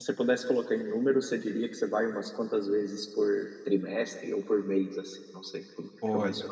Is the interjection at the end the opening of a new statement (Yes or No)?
Yes